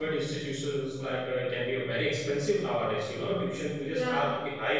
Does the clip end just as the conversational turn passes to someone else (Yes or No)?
No